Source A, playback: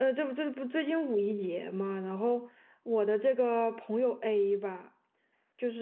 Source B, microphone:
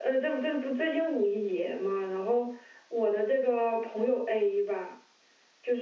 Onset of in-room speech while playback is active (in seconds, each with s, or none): none